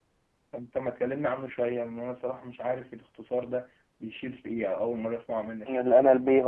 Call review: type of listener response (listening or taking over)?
taking over